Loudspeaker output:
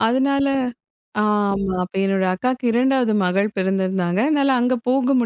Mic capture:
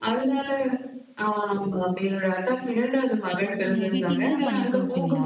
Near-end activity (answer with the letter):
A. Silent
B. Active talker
B